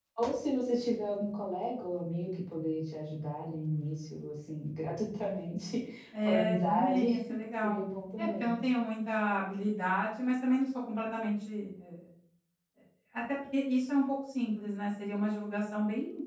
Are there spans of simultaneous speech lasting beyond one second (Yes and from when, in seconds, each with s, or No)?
Yes, from 6.2 s